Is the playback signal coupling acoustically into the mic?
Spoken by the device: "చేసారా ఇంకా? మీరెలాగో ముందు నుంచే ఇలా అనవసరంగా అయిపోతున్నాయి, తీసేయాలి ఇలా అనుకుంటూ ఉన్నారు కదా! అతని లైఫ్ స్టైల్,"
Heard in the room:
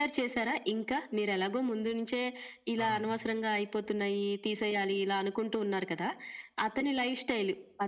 Yes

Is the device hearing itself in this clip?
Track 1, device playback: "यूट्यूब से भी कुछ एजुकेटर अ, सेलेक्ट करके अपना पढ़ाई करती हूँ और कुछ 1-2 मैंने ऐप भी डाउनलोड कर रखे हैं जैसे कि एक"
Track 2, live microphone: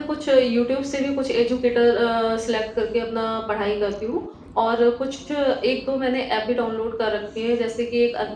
Yes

